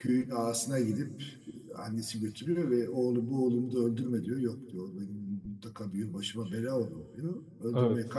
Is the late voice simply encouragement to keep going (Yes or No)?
Yes